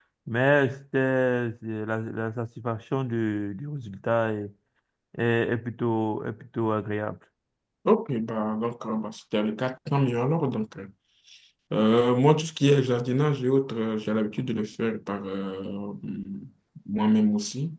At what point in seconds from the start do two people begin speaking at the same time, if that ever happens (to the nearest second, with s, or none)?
none